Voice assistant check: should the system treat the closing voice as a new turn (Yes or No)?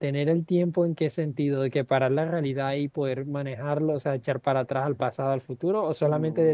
Yes